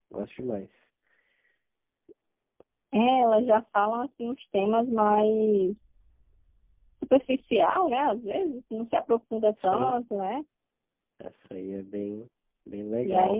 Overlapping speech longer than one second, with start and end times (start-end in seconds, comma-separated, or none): none